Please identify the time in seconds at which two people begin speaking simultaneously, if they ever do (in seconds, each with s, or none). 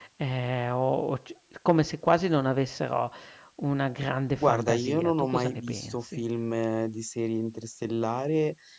4.4 s